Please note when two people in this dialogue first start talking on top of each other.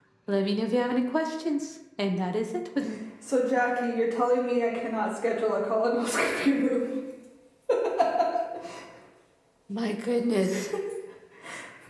none

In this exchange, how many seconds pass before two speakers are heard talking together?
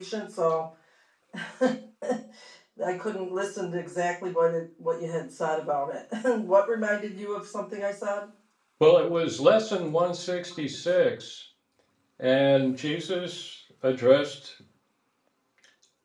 none

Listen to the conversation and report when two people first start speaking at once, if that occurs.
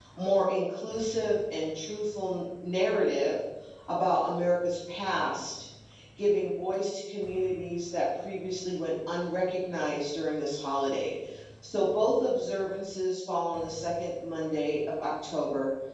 none

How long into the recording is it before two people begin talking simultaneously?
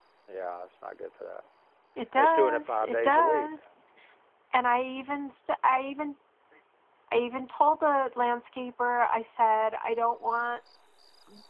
2 s

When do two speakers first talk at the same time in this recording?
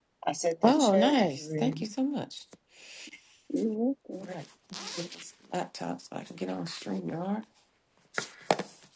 1 s

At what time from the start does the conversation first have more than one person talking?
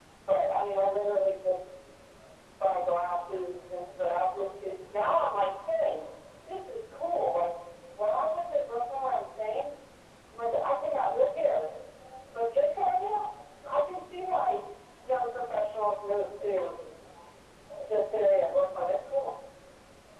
none

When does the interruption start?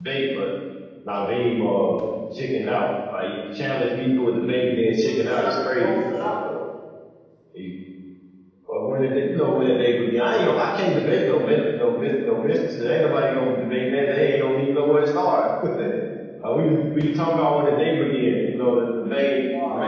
5 s

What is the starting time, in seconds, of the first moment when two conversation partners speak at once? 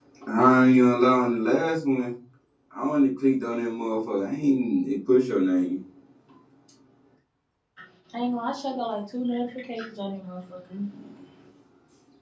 none

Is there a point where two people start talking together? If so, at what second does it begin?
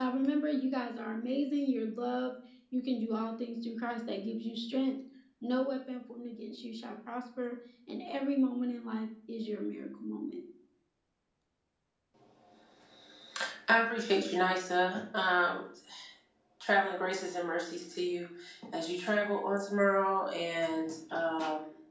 none

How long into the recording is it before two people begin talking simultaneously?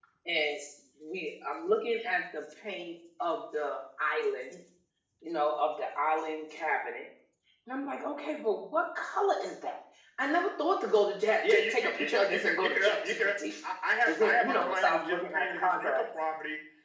11 s

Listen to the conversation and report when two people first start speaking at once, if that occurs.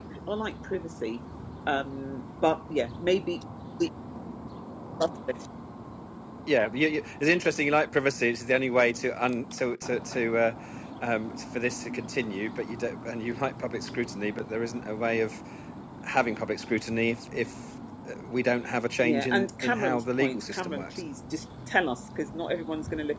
19 s

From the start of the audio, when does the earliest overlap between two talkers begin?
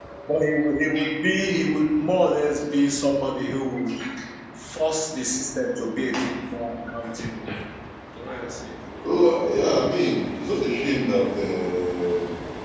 none

